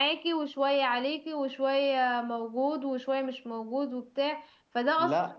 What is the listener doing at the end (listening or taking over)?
listening